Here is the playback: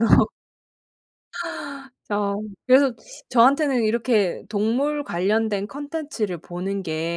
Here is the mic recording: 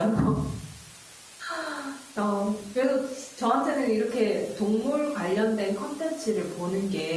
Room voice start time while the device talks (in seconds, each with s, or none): none